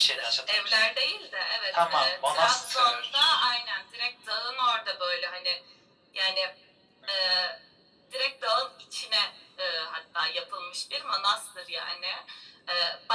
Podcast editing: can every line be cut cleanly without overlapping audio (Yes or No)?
No